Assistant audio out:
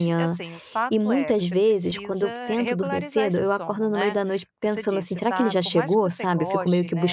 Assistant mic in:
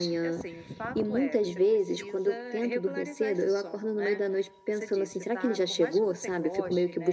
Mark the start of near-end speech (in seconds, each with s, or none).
none